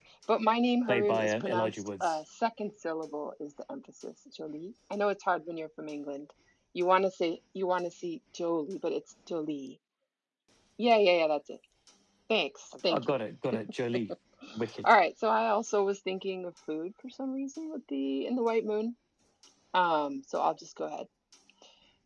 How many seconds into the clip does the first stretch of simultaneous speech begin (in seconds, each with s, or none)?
0.9 s